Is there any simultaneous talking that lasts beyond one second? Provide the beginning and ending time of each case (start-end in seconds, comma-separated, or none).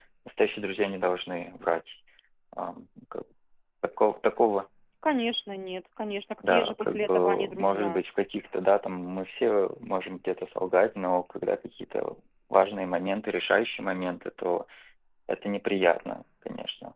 6.5-8.0